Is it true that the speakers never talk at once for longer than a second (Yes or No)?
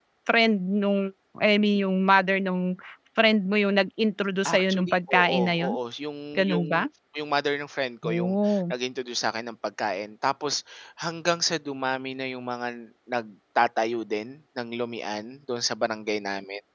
No